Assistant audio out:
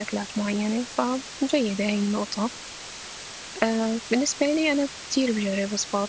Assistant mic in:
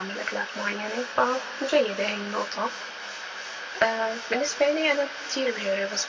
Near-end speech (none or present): none